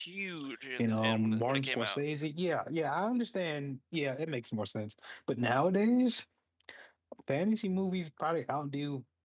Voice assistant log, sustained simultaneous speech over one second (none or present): present